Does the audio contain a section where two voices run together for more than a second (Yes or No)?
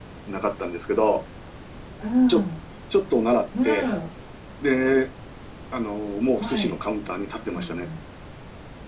No